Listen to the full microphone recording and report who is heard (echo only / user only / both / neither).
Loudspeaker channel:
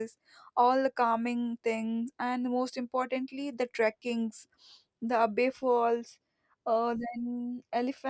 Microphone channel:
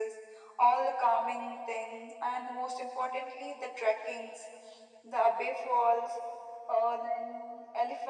echo only